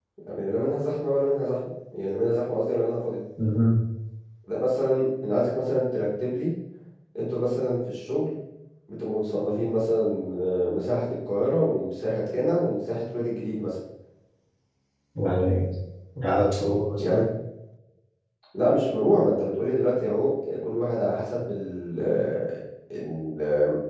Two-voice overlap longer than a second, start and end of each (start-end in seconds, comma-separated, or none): none